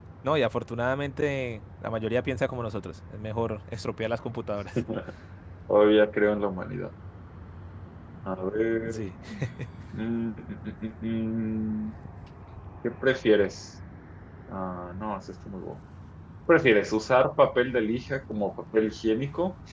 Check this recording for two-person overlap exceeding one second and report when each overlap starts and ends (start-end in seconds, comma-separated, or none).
none